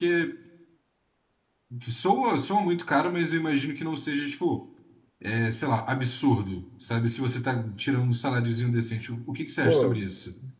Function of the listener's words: taking over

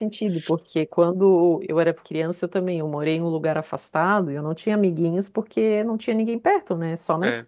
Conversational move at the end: listening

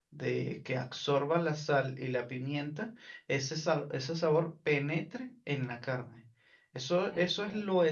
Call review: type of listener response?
listening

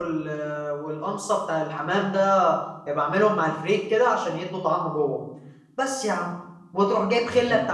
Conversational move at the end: listening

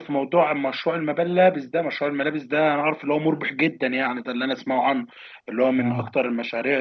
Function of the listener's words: listening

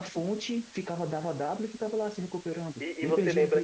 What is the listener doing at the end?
taking over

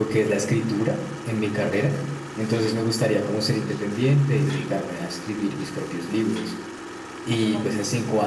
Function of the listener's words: listening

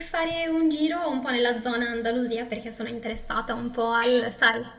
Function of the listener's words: listening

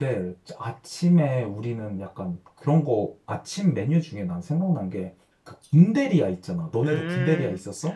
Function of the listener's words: taking over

